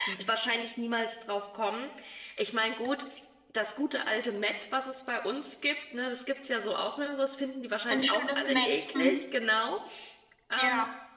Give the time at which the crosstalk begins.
7.9 s

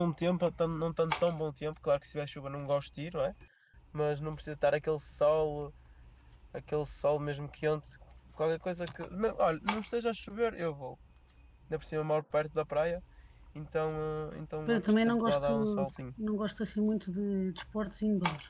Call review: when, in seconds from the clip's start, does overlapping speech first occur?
14.7 s

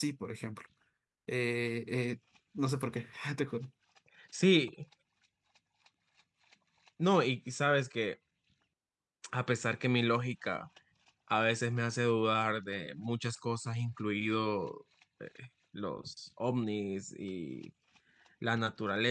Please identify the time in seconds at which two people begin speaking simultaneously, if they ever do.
none

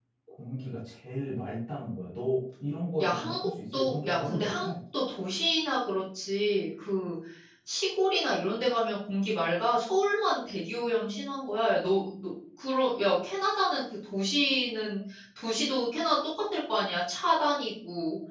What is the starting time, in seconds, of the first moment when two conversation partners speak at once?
3.0 s

